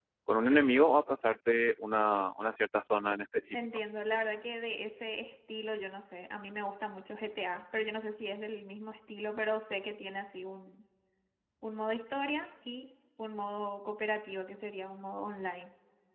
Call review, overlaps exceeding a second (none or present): none